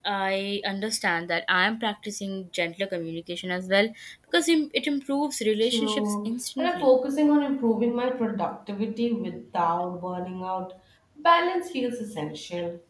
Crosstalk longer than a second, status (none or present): present